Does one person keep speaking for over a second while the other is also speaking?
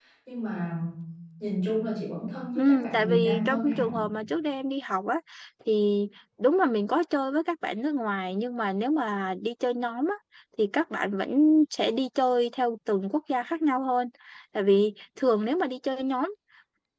Yes, from 2.5 s

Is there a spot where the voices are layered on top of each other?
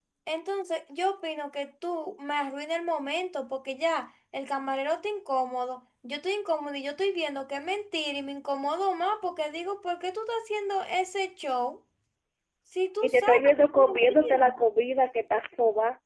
Yes, from 13.0 s

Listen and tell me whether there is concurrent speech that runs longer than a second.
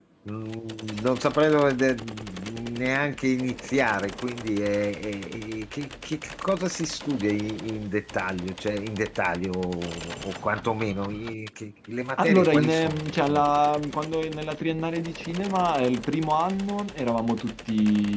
Yes, from 12.2 s

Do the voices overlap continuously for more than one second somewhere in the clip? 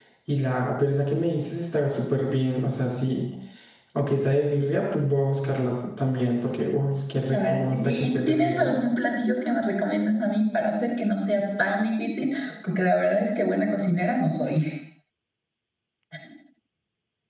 Yes, from 7.3 s

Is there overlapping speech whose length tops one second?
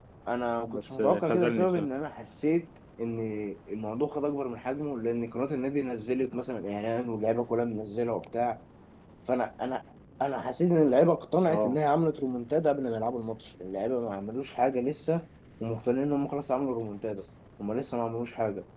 Yes, from 0.6 s

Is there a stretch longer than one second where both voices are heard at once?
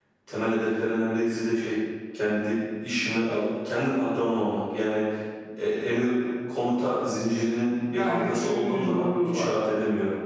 Yes, from 7.8 s

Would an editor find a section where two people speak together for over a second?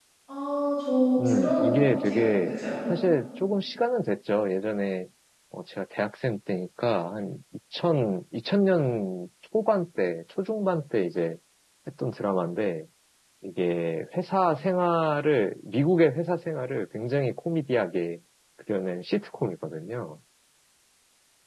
Yes, from 1.2 s

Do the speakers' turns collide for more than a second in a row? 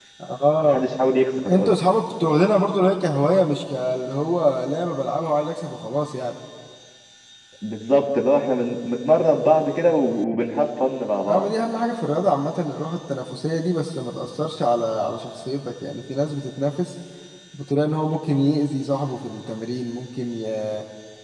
No

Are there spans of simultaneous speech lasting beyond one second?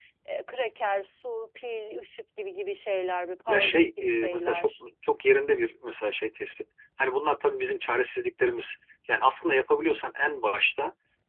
Yes, from 3.5 s

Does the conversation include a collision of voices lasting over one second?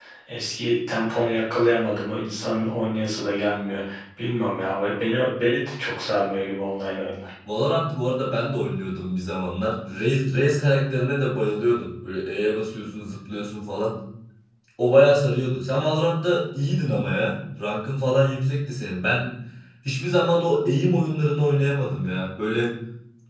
No

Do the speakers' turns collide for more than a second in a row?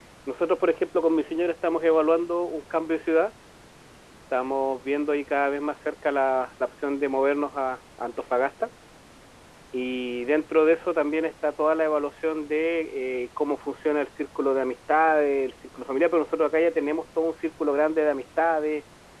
No

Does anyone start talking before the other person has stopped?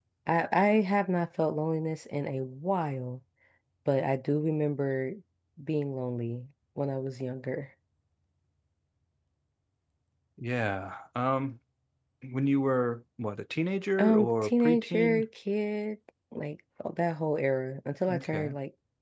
Yes, from 14.0 s

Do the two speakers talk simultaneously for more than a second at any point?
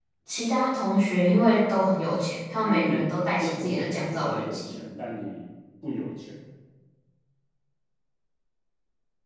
Yes, from 2.6 s

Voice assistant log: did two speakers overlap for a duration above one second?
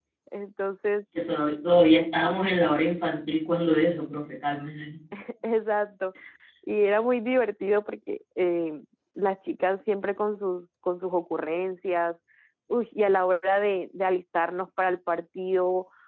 No

